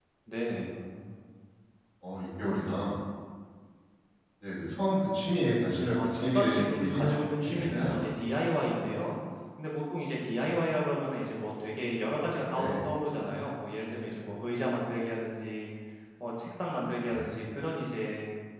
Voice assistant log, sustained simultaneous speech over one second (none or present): present